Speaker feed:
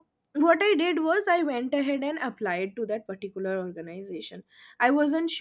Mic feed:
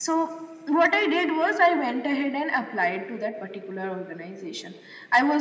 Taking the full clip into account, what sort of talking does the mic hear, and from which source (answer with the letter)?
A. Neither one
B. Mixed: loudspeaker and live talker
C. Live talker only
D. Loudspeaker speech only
D